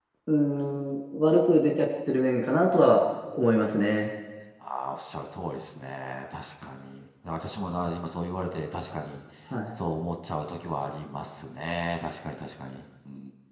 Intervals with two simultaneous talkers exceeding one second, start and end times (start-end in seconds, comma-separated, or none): none